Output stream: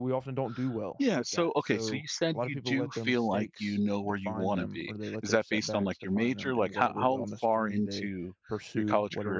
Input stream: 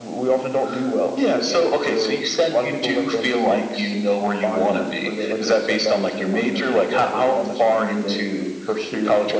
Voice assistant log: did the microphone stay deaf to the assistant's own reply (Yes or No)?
No